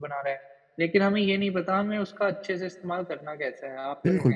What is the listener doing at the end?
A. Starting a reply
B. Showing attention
A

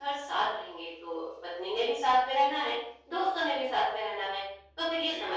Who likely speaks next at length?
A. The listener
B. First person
B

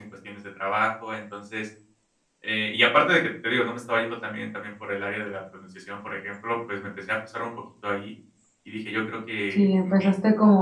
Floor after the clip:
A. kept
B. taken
B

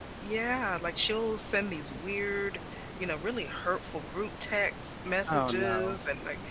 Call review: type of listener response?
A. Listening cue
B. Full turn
A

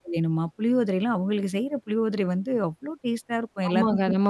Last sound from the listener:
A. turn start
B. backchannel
A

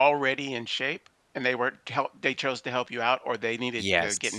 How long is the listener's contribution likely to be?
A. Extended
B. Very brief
A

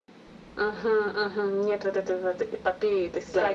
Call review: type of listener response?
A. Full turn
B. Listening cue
A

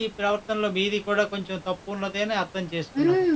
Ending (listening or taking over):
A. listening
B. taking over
B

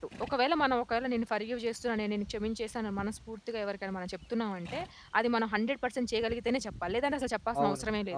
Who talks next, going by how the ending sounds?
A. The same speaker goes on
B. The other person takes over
B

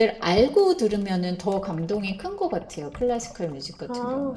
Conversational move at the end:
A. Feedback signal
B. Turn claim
B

